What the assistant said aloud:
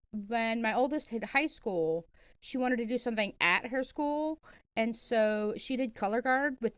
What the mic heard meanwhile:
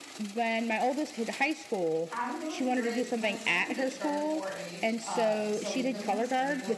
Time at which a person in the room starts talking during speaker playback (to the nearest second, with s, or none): 2 s